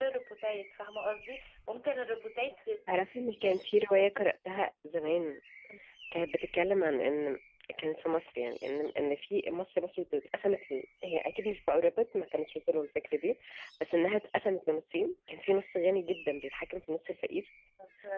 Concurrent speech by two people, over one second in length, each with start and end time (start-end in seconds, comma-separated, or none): none